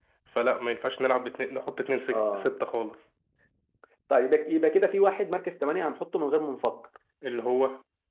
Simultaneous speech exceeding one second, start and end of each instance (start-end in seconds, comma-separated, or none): none